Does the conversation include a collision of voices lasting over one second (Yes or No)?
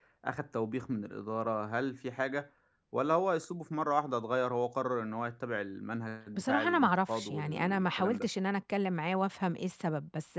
Yes